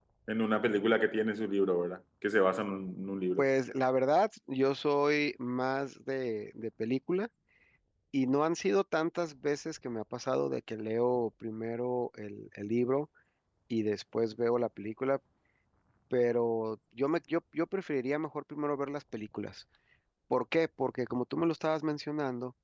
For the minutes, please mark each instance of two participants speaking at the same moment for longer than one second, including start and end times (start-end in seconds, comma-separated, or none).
none